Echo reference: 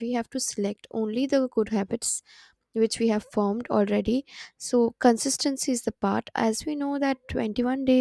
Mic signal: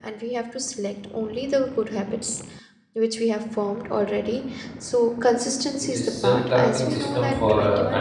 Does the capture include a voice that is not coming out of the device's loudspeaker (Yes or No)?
Yes